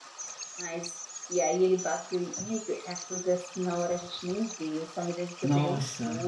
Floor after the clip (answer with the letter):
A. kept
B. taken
A